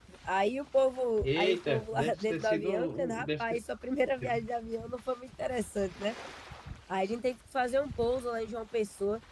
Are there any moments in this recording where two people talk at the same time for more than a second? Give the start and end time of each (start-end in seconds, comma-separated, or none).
1.2-3.6